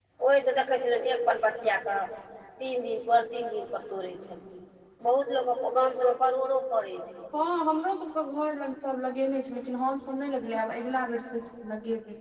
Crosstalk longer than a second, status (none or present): none